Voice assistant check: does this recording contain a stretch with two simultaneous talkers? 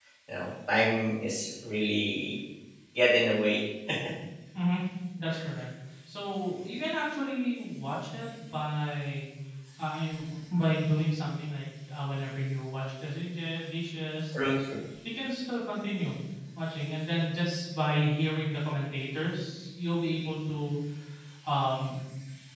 No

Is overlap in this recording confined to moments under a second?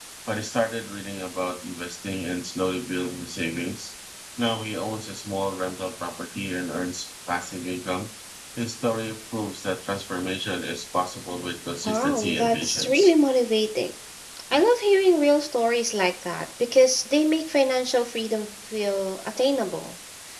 No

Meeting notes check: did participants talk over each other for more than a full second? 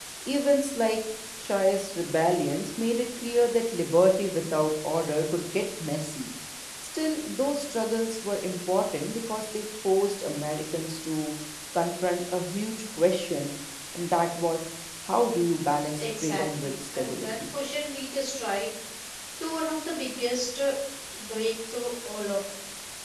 Yes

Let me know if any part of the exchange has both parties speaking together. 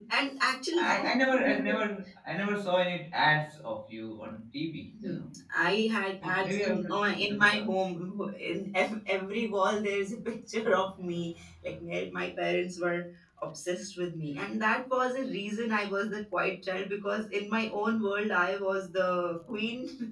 Yes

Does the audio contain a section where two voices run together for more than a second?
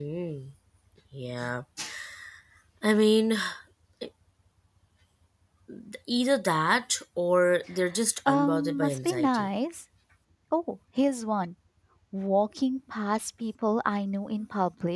Yes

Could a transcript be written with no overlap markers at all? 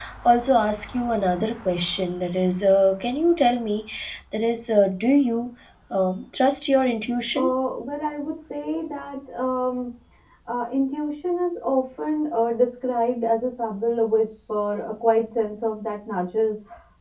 Yes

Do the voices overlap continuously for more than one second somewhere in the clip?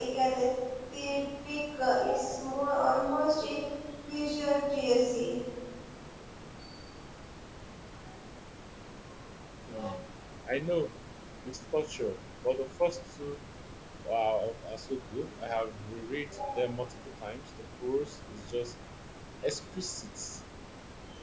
No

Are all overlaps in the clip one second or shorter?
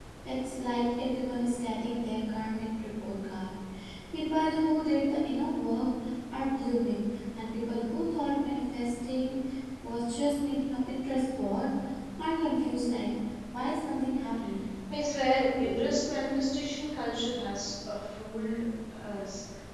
Yes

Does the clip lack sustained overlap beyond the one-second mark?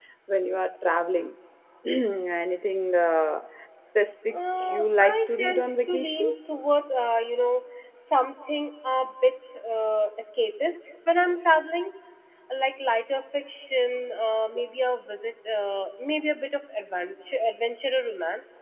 No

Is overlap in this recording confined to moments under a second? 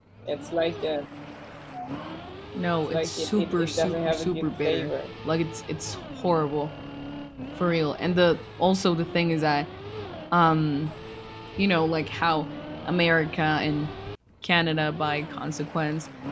No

